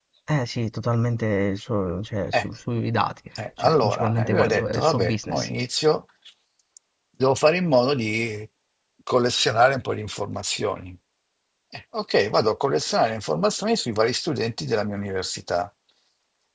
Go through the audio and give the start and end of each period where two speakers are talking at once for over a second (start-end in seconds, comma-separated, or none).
3.6-5.5